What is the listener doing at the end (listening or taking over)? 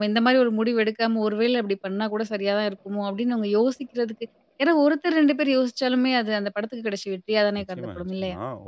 taking over